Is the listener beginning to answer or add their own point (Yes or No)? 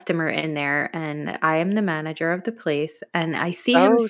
Yes